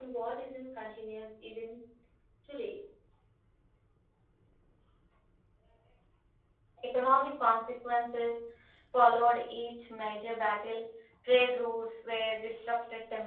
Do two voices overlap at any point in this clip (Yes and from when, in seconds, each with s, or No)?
No